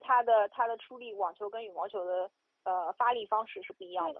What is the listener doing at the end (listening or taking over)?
taking over